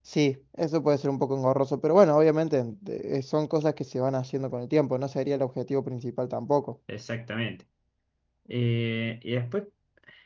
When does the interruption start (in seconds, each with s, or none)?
none